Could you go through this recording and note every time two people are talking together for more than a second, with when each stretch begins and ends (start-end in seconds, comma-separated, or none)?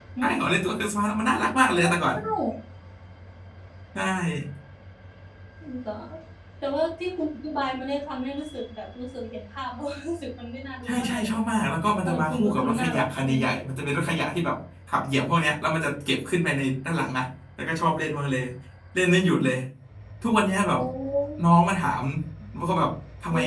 12.1-13.4